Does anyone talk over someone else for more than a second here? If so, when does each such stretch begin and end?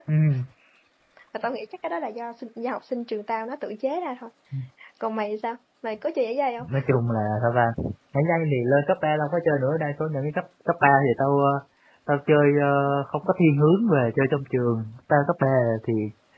none

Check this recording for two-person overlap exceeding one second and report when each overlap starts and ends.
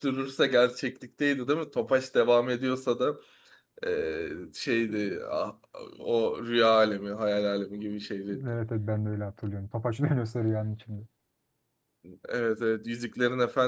none

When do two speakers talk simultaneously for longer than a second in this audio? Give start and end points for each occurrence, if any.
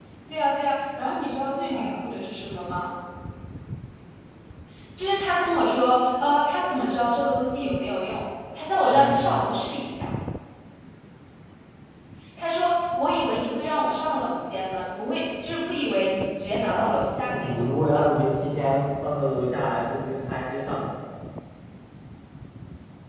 16.5-18.0

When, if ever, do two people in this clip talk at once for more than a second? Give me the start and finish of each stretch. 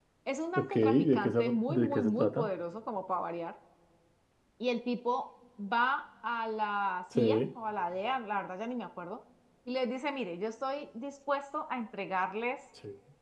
0.6-2.5

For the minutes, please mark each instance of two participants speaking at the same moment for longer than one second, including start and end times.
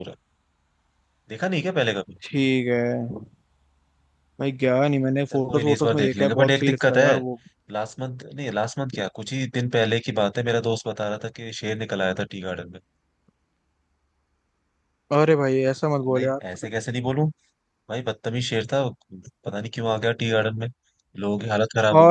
5.3-7.0

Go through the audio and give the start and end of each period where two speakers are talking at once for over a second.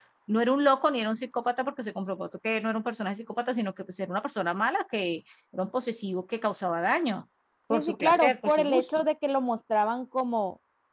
7.7-9.0

